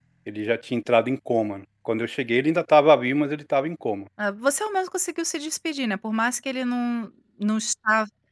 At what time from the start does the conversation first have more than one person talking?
none

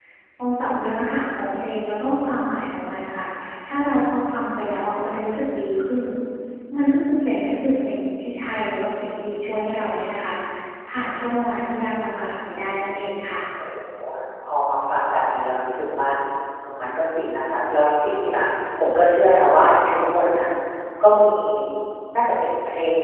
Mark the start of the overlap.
none

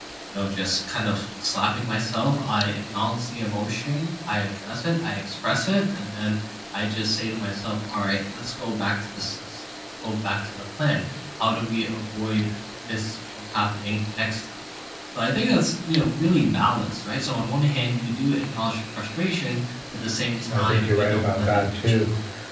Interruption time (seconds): 20.5 s

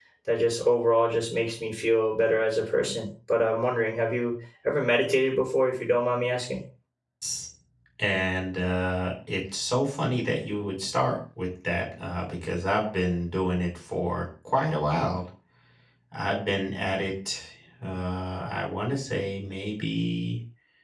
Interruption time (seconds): none

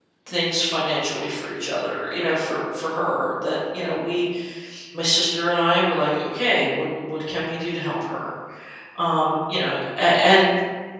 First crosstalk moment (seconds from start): none

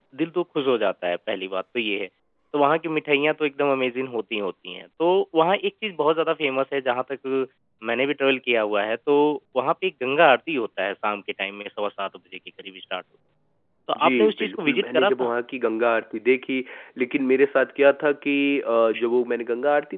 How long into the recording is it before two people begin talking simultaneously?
14.0 s

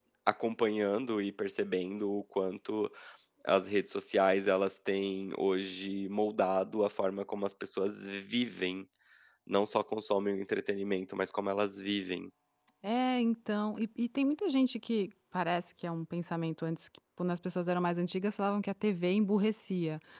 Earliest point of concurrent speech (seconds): none

